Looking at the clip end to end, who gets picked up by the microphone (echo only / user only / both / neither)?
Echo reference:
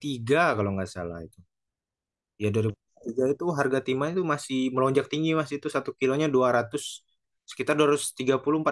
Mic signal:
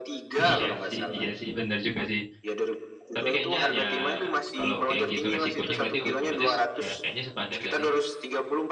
both